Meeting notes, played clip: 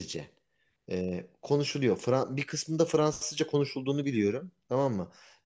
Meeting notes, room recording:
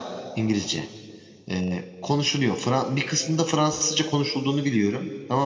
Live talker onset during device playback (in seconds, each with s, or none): none